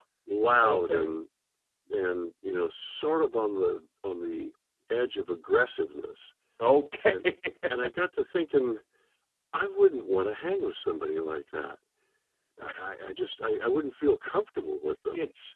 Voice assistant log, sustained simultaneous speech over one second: none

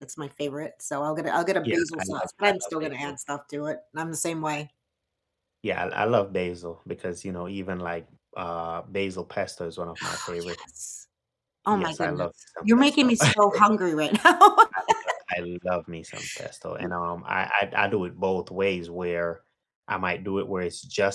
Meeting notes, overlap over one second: present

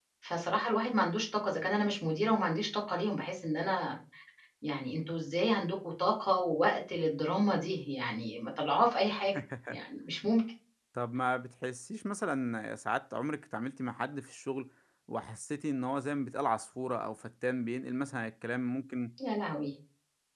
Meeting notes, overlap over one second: none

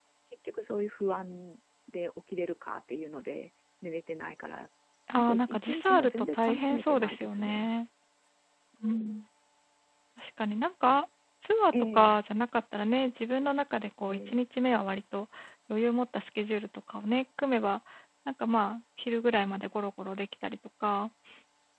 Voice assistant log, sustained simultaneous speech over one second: present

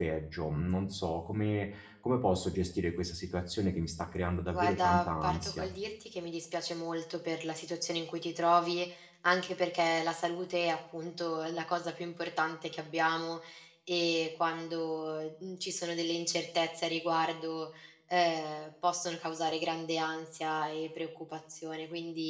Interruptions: present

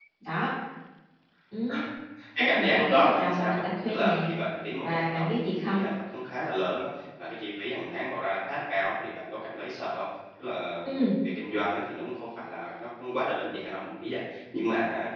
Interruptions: present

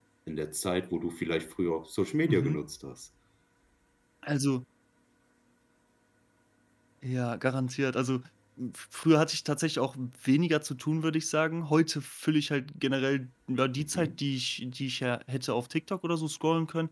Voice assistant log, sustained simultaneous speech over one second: none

